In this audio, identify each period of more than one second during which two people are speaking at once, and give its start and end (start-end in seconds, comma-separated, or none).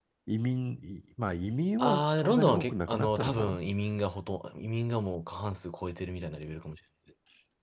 1.8-3.6